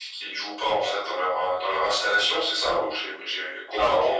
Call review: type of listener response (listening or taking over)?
taking over